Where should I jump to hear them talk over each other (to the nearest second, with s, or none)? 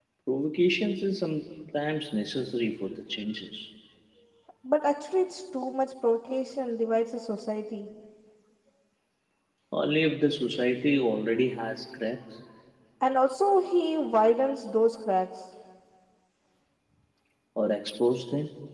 none